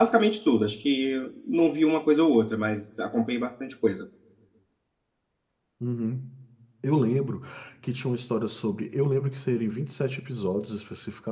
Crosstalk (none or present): none